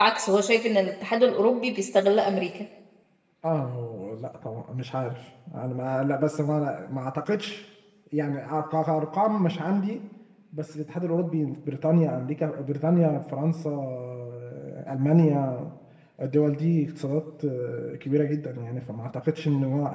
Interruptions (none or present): none